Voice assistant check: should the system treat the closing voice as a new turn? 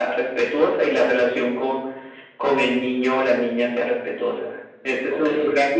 No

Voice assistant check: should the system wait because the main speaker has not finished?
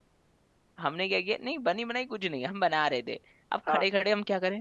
Yes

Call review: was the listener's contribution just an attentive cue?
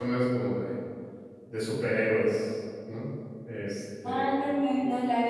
No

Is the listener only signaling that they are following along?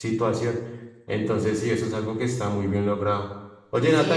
Yes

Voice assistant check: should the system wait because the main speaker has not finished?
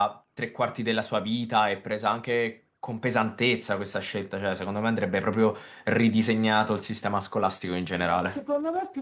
No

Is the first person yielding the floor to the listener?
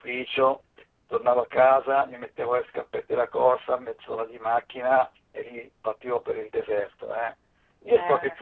No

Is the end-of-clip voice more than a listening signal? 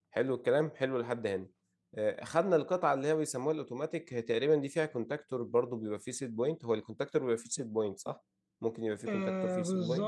Yes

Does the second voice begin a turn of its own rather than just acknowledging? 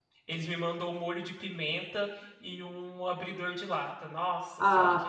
Yes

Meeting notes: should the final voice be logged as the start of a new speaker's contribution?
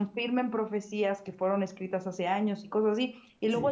No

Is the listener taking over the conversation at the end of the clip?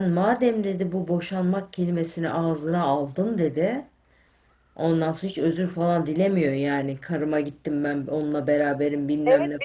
Yes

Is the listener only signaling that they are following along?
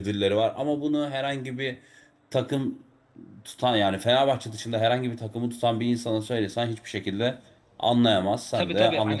No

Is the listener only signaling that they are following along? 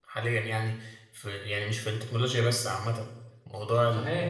No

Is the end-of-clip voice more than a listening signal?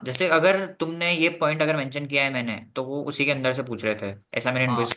Yes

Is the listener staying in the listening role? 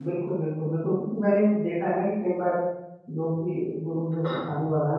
Yes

